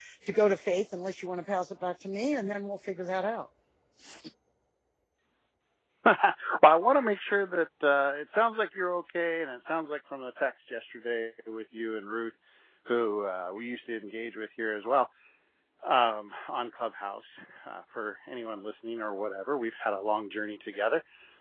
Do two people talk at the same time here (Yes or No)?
No